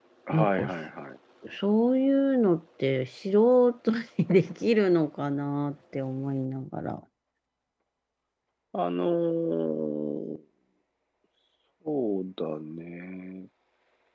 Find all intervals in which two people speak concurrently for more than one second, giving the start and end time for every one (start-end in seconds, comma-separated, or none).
none